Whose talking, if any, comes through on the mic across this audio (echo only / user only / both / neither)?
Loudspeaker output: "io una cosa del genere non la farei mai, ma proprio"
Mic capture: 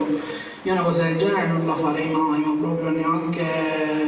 echo only